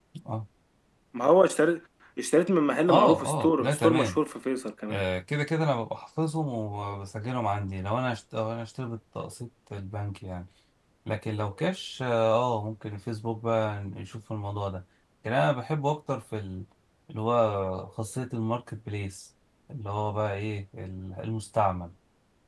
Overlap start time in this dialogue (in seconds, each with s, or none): 2.9 s